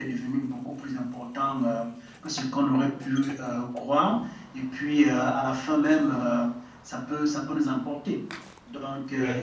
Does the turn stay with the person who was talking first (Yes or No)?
Yes